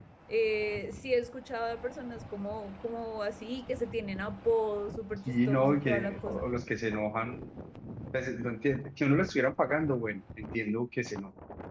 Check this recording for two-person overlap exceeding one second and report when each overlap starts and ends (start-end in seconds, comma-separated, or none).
5.3-6.5